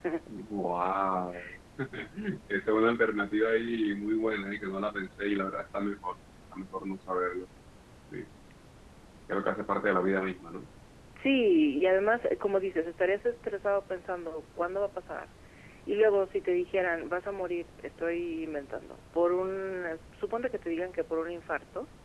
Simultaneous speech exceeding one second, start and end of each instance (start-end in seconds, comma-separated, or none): none